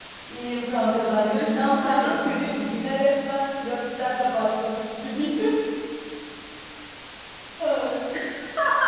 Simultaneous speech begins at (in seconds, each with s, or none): 1.0 s